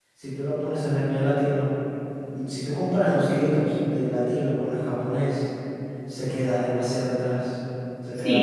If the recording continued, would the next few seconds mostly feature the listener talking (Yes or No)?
Yes